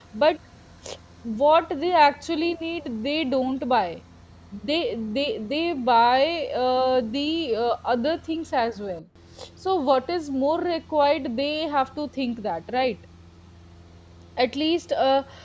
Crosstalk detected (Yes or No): No